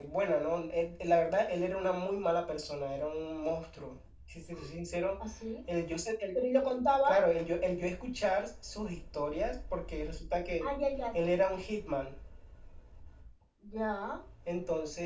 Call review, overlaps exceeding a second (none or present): none